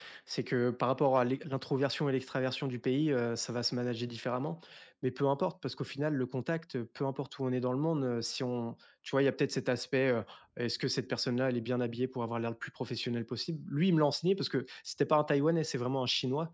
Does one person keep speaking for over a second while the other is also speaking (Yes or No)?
No